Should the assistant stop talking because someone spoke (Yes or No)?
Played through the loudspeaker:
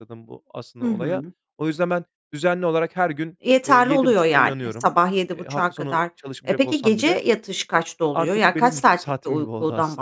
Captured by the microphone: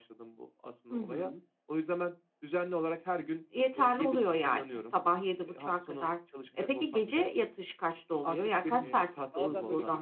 Yes